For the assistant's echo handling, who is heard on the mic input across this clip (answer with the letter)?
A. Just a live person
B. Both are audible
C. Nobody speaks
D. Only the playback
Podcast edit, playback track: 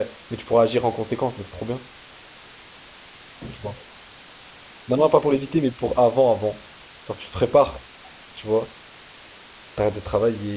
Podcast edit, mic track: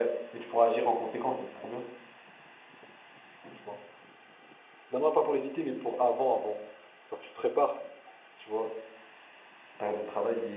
D